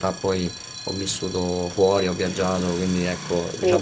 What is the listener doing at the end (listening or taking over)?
taking over